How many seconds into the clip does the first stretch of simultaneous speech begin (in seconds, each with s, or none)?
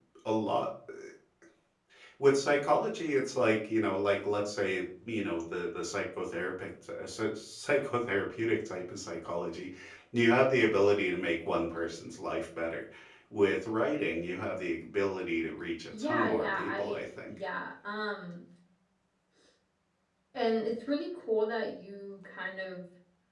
15.9 s